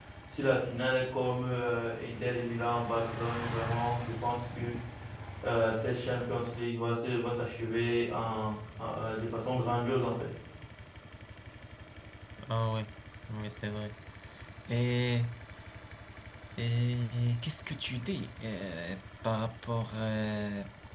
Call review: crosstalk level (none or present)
none